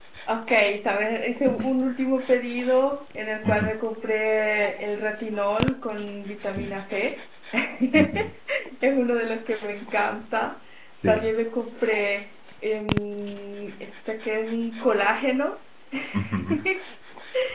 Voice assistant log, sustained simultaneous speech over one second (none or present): none